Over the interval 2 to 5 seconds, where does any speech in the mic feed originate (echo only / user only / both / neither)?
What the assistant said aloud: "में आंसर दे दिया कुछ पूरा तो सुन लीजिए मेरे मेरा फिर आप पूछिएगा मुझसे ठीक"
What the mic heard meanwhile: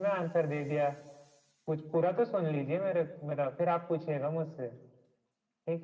echo only